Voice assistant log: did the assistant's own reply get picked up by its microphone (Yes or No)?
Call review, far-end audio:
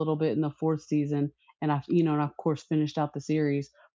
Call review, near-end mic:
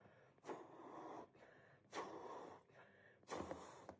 No